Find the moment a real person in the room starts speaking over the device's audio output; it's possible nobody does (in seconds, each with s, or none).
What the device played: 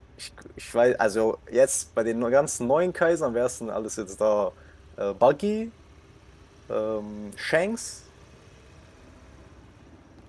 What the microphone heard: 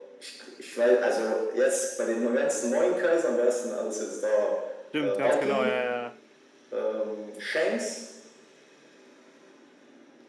4.9 s